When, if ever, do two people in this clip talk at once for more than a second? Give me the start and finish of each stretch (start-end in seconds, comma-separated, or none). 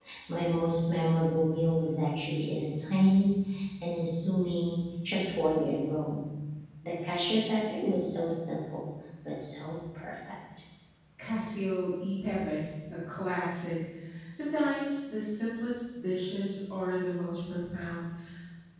none